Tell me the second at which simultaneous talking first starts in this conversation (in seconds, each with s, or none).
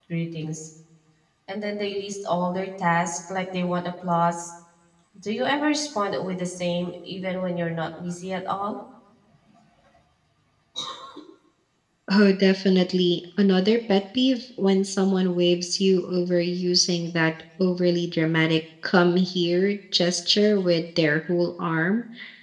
none